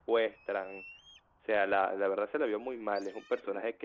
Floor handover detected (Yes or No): No